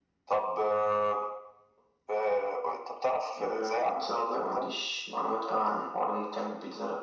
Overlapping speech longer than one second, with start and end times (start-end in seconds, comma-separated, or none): 3.4-4.7